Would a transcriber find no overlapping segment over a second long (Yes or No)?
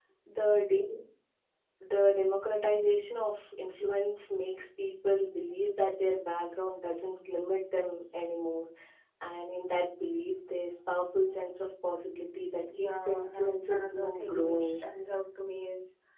No